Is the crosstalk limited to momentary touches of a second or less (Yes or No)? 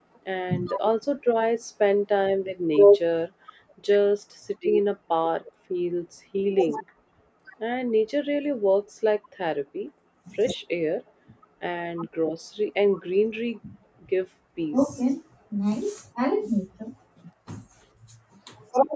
Yes